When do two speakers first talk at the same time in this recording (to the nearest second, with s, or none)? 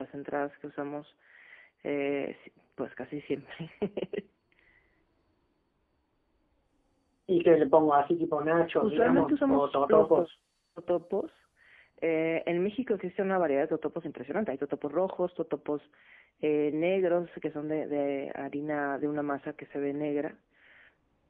9 s